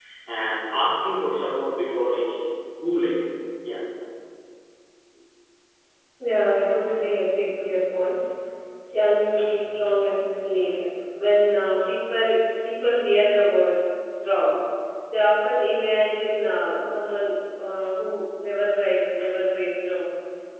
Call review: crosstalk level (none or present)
none